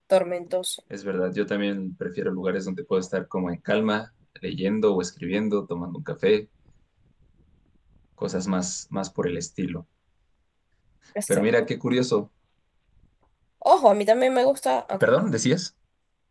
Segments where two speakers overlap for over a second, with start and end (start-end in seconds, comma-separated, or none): none